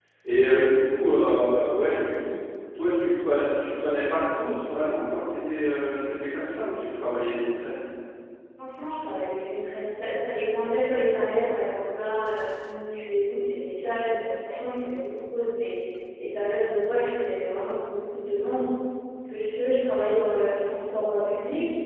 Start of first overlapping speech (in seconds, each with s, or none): none